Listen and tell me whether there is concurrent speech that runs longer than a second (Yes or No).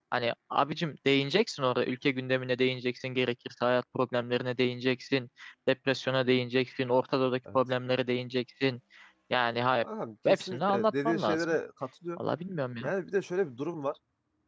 Yes